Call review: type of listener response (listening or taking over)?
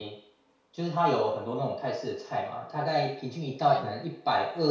listening